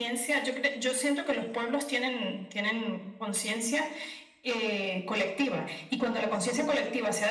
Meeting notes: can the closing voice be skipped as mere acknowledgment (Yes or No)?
Yes